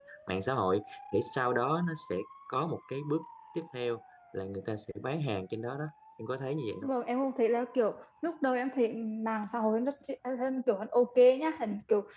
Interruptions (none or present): none